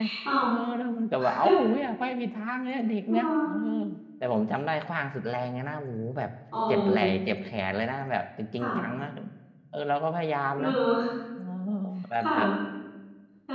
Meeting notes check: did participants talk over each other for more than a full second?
No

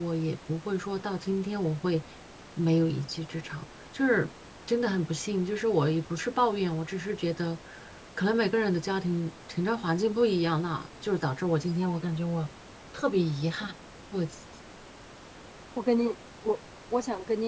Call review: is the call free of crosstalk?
Yes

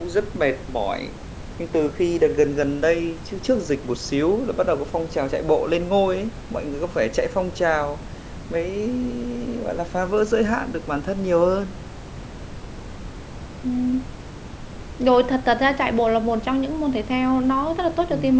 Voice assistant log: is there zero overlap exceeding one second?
Yes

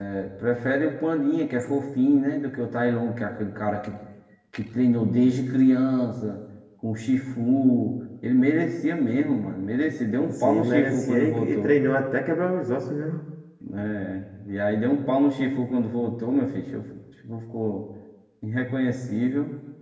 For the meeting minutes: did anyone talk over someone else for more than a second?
Yes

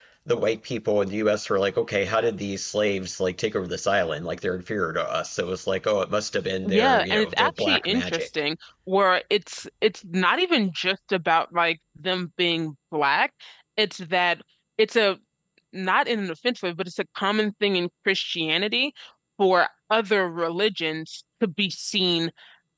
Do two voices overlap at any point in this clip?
Yes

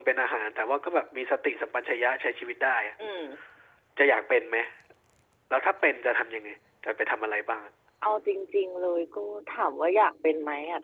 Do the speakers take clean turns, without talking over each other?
Yes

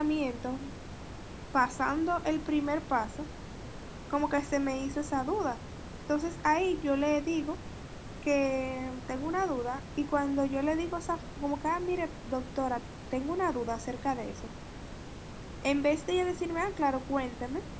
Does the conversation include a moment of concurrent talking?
No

